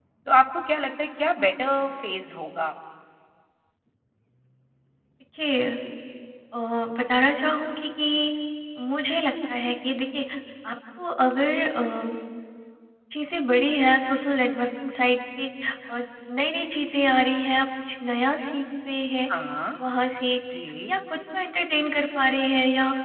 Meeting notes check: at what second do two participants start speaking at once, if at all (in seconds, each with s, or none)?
none